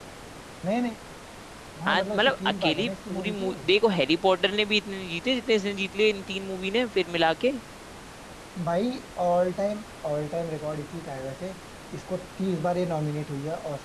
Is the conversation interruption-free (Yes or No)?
No